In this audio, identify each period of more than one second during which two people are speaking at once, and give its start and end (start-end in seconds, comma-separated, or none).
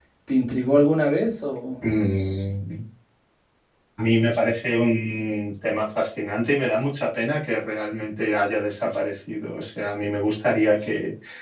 none